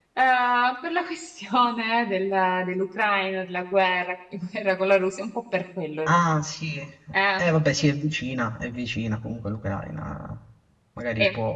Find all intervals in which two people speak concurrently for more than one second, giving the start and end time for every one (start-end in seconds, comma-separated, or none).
none